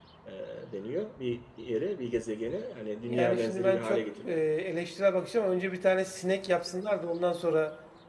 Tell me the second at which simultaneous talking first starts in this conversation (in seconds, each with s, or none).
3.1 s